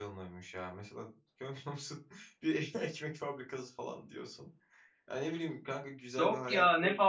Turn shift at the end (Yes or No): Yes